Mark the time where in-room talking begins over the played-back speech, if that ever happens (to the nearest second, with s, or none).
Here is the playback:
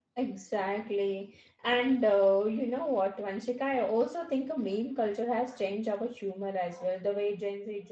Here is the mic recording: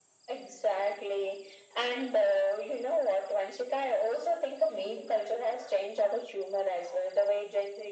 none